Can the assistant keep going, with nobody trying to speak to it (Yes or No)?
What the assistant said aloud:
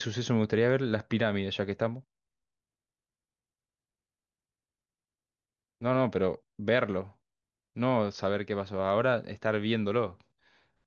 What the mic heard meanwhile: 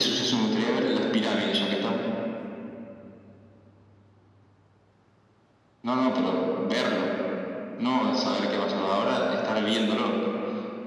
Yes